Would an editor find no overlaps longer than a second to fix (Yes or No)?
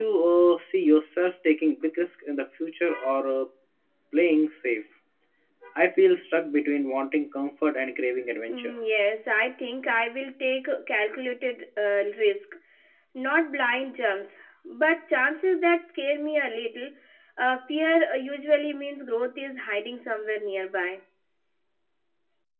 Yes